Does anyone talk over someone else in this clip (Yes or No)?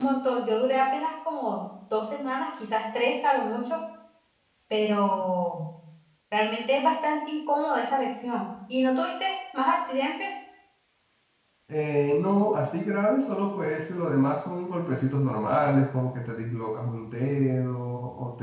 No